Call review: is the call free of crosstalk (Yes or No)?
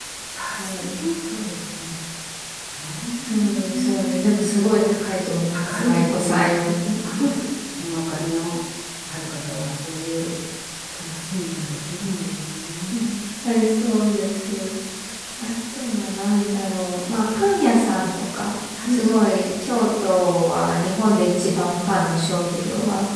No